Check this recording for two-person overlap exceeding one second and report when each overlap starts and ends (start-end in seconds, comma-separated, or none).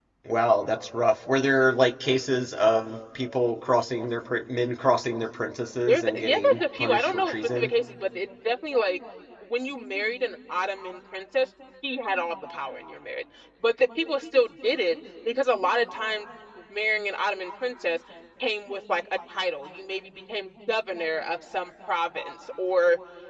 5.9-7.7